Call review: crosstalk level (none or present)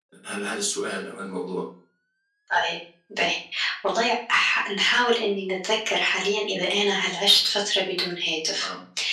none